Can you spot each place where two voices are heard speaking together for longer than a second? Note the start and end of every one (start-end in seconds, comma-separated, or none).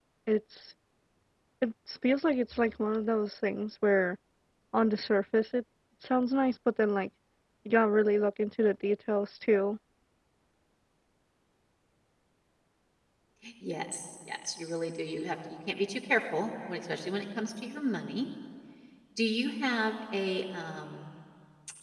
none